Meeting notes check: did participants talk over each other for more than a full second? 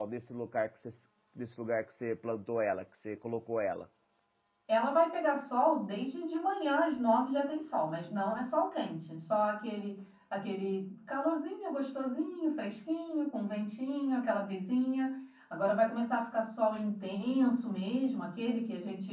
No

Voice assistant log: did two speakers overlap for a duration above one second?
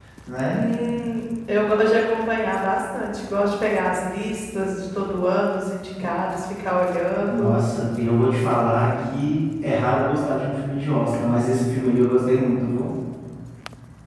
No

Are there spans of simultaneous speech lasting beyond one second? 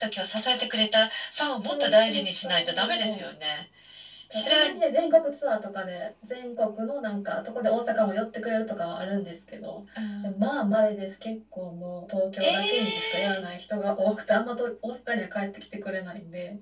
Yes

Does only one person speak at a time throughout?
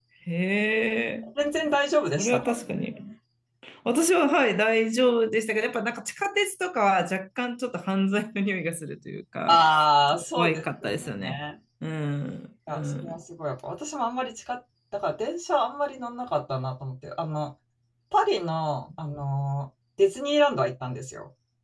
No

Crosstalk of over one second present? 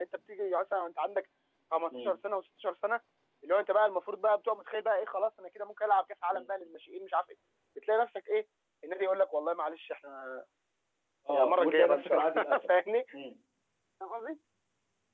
Yes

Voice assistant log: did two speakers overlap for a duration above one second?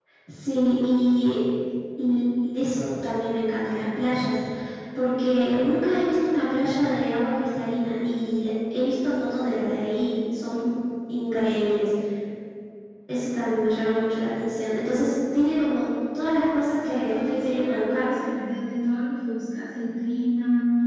Yes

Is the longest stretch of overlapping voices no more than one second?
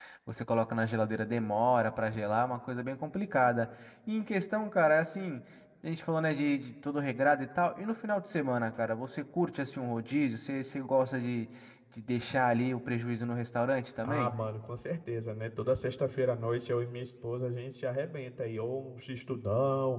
Yes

